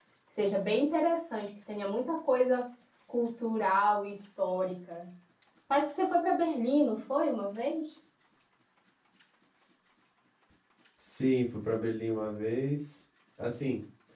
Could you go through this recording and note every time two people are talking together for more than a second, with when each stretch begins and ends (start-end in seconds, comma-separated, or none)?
none